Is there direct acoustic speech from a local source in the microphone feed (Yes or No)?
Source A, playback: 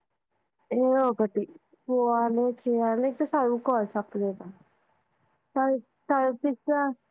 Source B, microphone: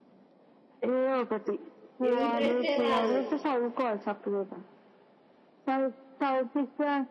Yes